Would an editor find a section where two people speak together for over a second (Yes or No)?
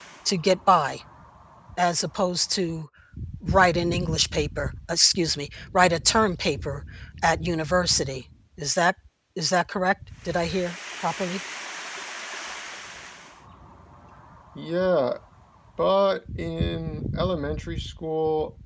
No